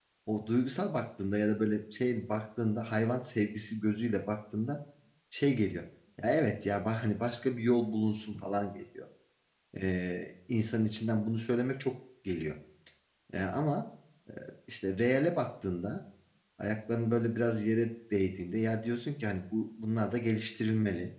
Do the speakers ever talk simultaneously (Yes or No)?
No